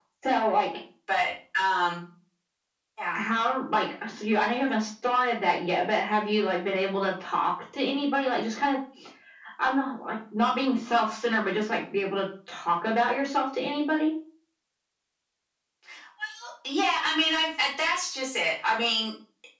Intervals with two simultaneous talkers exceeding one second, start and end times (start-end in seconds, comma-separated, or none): none